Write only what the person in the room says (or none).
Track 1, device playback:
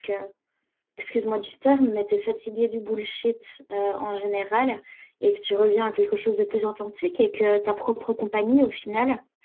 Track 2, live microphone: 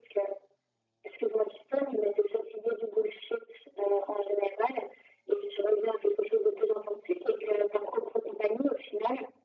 none